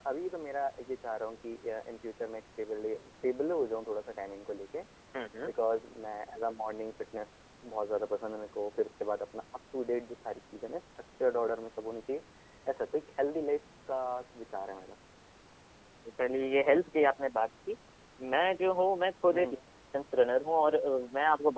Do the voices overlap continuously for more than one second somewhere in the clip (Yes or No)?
No